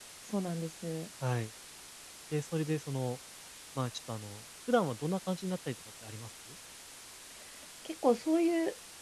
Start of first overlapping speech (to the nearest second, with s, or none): none